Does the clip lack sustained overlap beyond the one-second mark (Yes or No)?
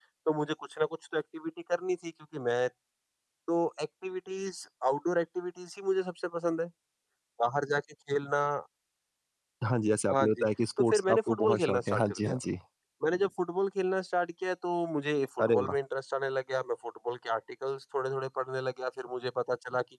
No